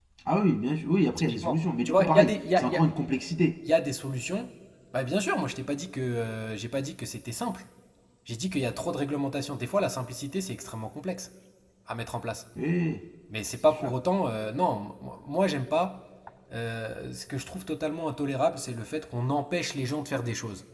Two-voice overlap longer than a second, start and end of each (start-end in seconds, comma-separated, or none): 1.2-2.8